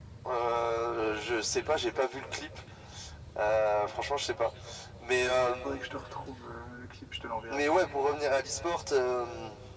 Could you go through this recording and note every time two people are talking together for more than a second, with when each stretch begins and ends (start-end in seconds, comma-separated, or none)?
none